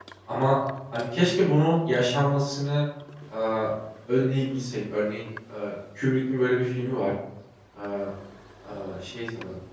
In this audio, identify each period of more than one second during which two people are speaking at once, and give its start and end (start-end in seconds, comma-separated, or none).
none